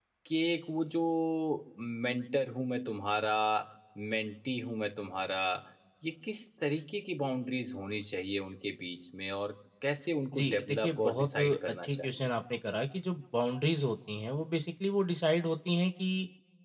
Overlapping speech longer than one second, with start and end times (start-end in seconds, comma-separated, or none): 10.3-12.3